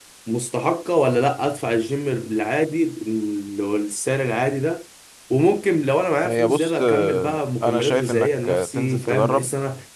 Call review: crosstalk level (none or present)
present